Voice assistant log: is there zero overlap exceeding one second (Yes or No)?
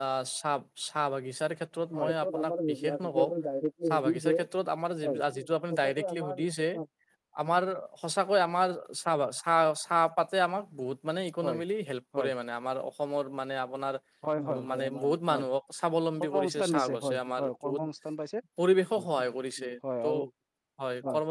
No